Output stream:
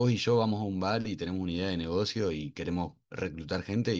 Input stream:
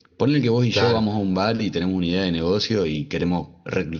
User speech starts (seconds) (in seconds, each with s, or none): 0.7 s